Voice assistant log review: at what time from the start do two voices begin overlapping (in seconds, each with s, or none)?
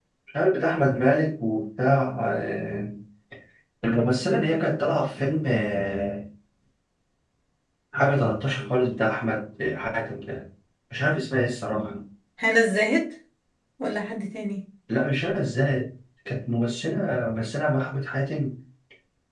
none